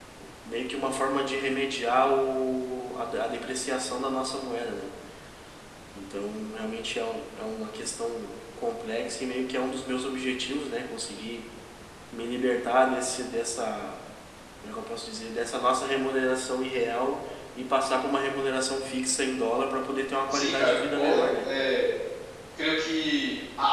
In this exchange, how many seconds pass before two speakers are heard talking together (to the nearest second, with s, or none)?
20 s